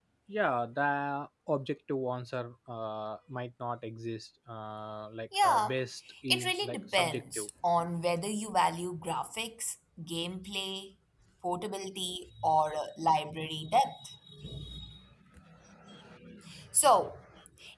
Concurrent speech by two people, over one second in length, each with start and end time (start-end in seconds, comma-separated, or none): 6.3-7.5